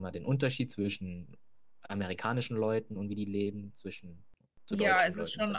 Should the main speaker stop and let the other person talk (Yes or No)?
Yes